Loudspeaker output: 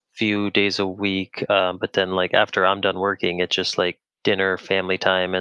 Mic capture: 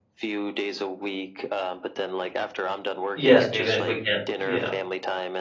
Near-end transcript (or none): Yes, even if we can't yeah.